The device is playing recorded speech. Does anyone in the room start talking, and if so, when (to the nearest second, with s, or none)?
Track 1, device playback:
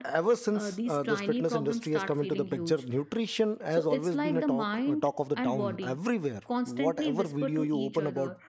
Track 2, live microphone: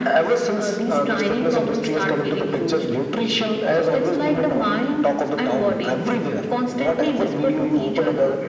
none